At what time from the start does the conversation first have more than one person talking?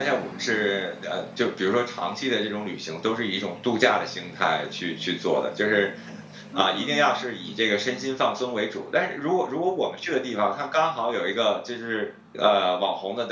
6.5 s

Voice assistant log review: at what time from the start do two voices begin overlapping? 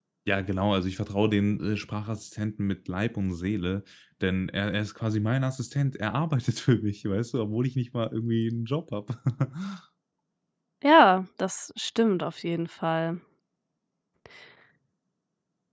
none

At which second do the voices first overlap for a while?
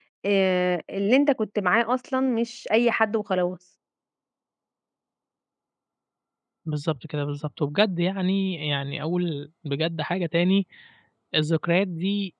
none

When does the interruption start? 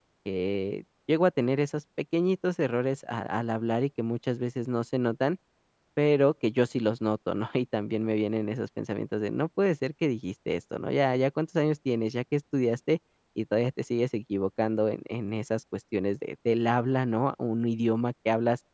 none

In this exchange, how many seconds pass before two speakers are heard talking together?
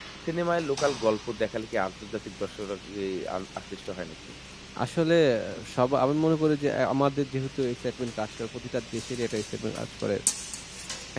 none

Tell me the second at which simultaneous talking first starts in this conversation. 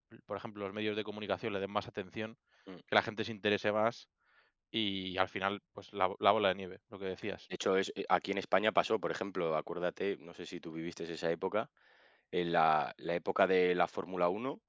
none

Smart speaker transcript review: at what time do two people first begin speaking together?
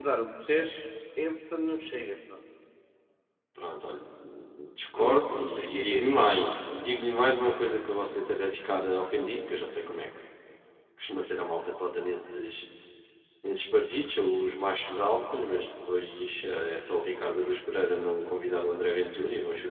5.0 s

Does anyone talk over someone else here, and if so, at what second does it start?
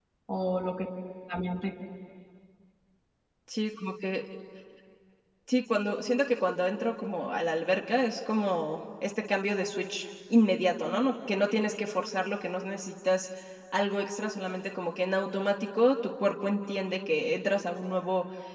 none

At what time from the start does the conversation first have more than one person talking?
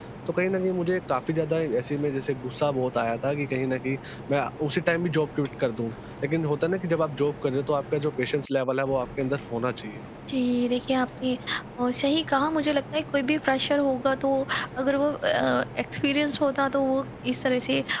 none

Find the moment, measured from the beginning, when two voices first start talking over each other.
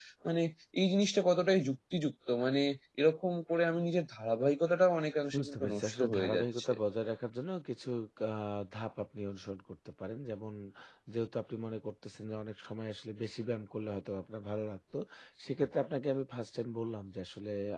5.3 s

